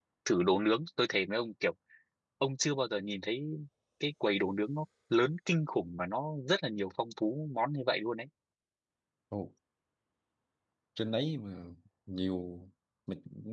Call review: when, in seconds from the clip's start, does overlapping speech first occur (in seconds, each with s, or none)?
none